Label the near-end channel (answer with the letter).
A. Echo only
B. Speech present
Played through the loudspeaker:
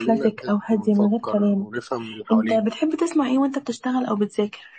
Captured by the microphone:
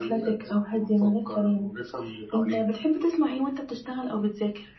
A